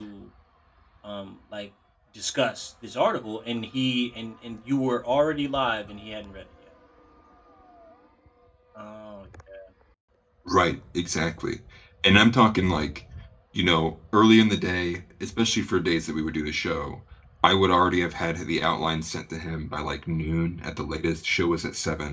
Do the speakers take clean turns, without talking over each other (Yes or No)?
Yes